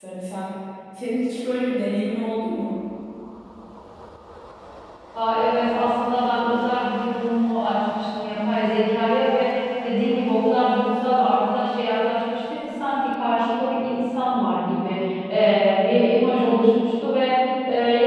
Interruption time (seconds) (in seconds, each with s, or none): none